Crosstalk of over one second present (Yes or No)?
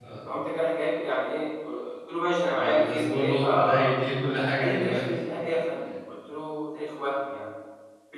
Yes